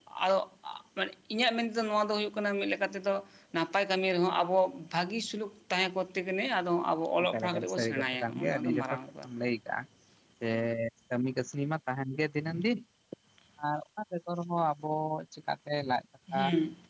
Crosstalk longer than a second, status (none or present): present